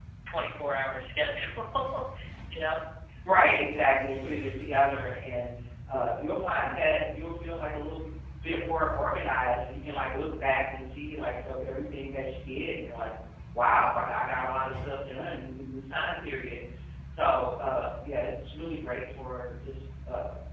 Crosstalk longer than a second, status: none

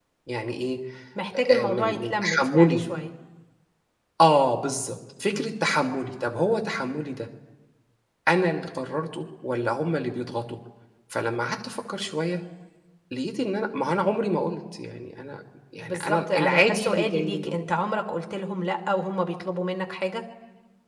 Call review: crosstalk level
present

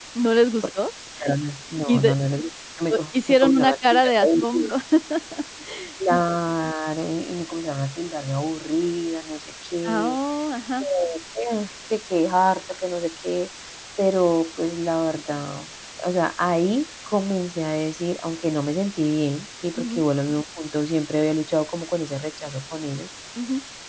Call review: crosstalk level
present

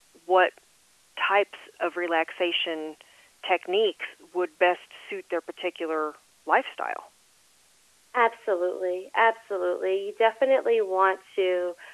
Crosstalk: none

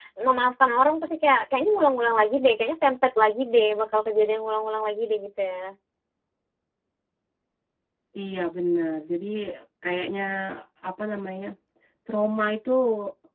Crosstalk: none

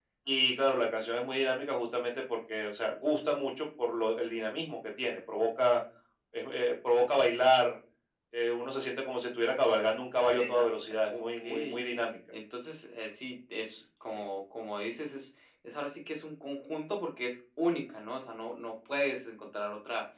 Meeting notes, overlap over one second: present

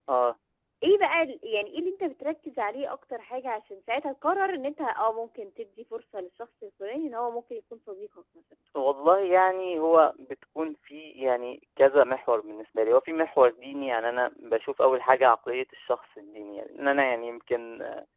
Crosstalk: none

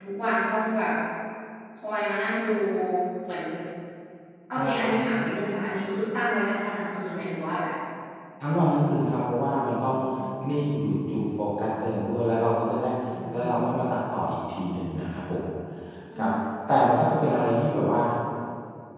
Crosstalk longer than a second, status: none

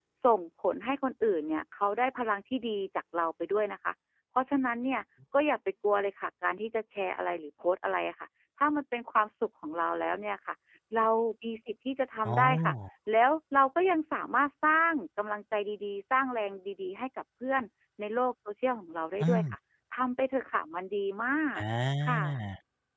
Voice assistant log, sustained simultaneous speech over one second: none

